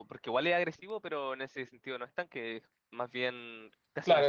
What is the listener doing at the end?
taking over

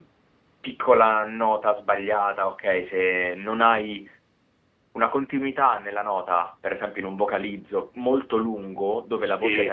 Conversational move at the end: listening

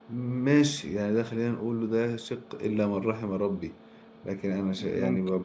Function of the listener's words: listening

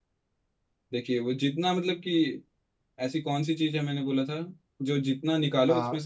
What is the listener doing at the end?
listening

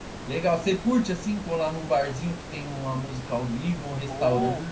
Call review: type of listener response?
taking over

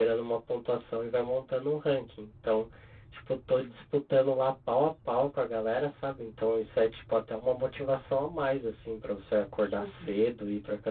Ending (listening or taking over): listening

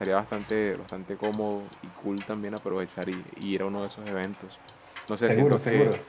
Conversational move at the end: listening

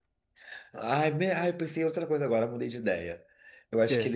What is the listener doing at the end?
listening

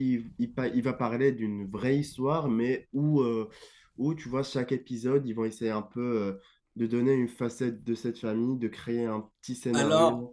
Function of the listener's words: taking over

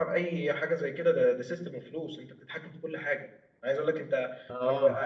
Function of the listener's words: listening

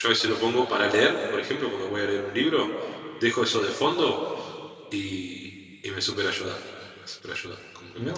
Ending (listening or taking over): taking over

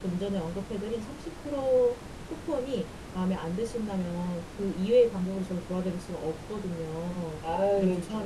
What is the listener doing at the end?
taking over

